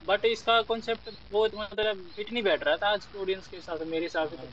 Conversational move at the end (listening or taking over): taking over